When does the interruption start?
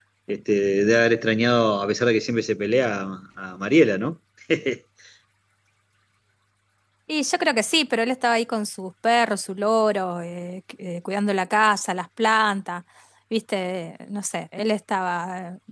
none

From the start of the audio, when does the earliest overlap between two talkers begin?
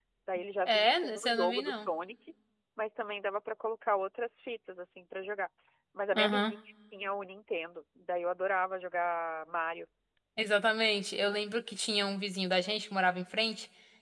0.7 s

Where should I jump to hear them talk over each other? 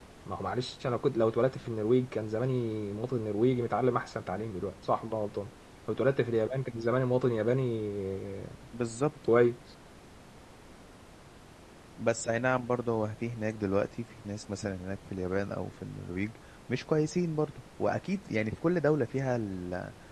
none

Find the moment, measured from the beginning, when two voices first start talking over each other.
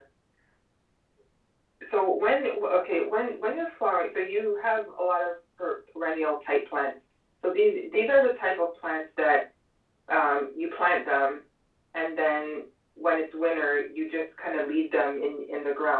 none

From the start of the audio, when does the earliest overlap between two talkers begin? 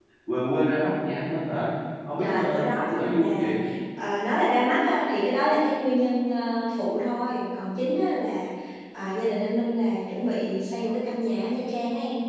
2.2 s

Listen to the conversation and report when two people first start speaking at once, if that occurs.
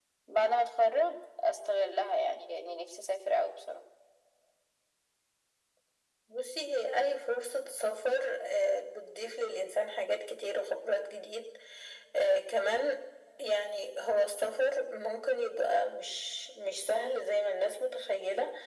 none

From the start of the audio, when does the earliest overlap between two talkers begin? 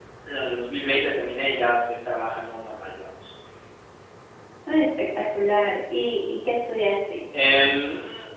none

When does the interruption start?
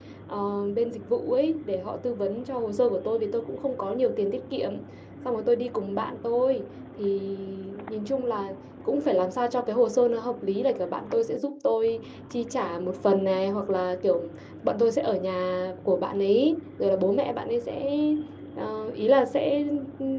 none

